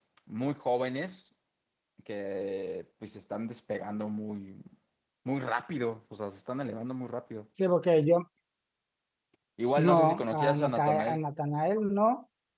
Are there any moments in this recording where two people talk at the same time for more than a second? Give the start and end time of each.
9.8-11.2

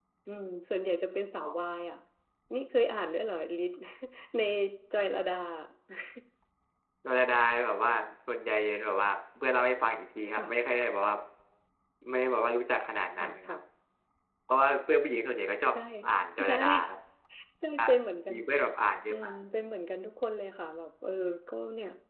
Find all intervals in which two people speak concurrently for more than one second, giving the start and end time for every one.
none

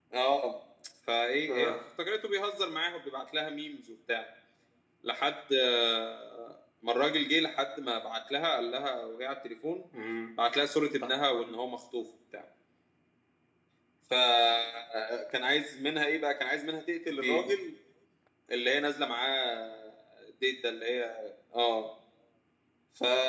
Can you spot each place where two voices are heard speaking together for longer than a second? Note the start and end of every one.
none

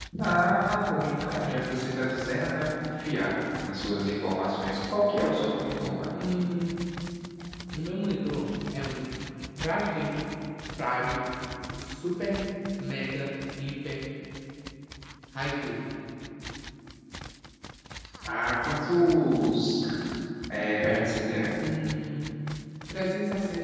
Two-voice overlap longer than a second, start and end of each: none

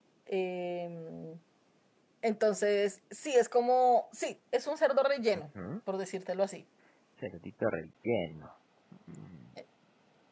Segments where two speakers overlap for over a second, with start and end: none

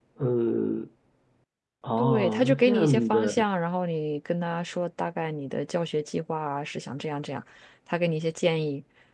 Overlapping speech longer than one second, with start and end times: 2.0-3.4

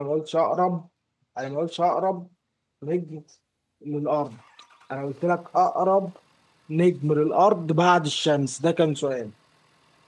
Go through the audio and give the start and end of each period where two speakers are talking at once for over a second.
none

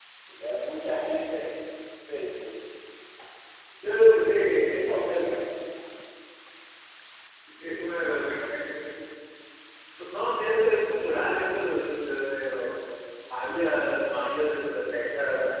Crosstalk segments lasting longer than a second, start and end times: none

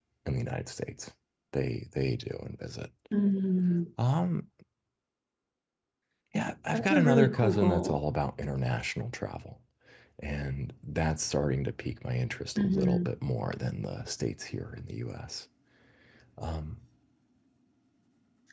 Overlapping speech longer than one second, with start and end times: 6.7-8.0

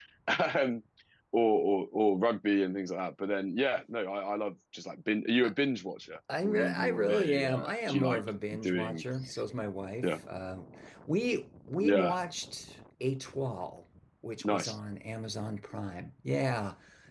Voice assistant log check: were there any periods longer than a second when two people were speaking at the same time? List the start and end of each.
6.4-8.2

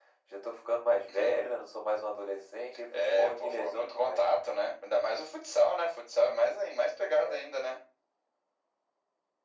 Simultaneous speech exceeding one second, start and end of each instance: 3.0-4.3

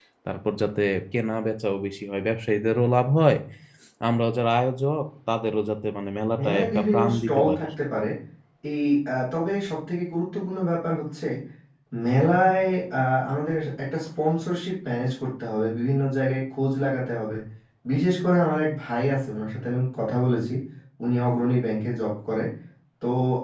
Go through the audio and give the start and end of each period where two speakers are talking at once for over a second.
6.4-7.7

